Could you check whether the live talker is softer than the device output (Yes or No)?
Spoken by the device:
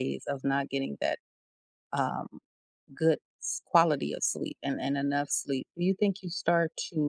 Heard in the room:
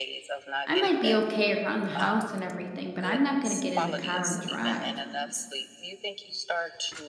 No